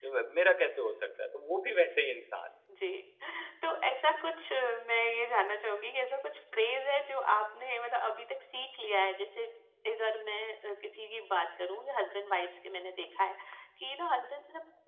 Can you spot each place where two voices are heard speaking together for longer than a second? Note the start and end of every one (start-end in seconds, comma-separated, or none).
none